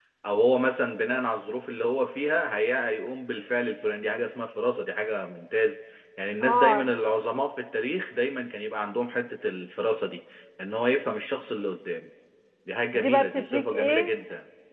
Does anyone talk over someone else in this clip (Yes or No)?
Yes